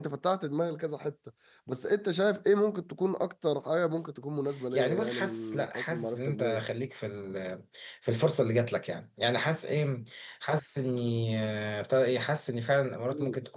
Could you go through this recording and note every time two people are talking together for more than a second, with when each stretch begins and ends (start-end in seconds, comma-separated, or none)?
4.7-6.6